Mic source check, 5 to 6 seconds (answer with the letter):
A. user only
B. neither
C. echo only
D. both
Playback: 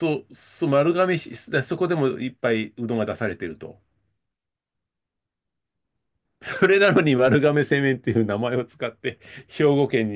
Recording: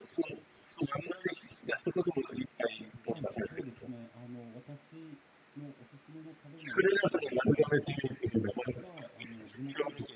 A